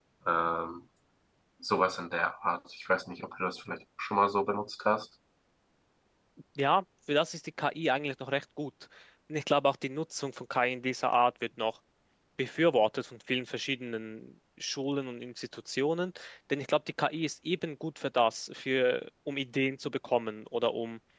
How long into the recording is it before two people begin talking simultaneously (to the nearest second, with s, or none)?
none